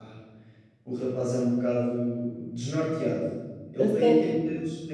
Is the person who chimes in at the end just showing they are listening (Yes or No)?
Yes